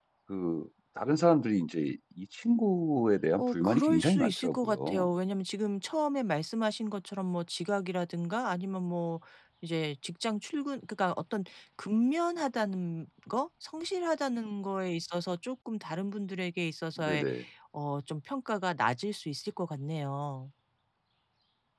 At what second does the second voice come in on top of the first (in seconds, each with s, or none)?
3.4 s